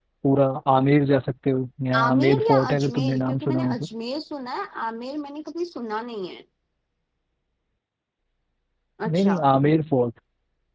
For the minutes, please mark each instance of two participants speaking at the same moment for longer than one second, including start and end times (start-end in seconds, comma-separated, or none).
2.0-3.9